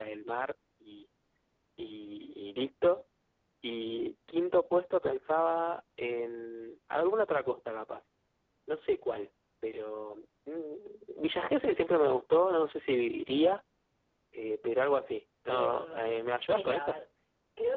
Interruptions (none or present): present